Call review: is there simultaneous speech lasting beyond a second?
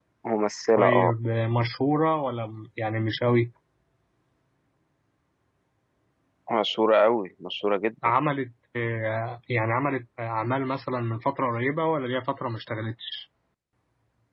No

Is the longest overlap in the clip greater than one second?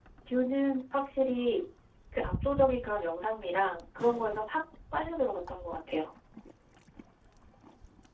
No

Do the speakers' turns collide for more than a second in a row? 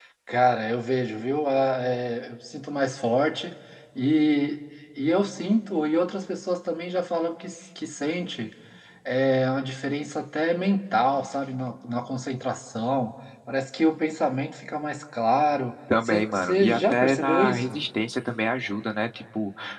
Yes, from 15.9 s

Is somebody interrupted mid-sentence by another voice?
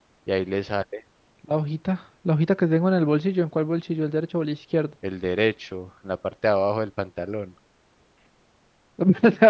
No

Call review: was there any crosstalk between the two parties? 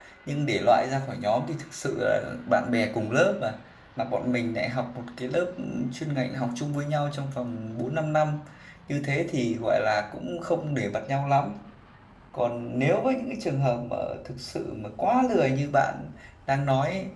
No

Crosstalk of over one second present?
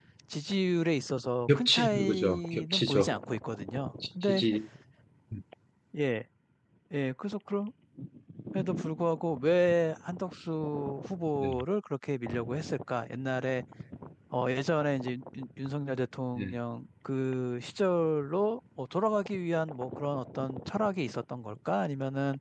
Yes, from 1.5 s

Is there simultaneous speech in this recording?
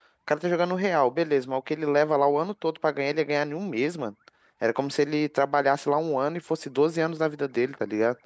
No

